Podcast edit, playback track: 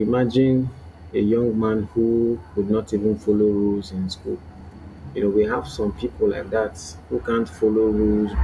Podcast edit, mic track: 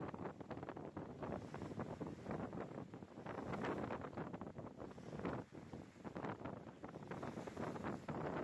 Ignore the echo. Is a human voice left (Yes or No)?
No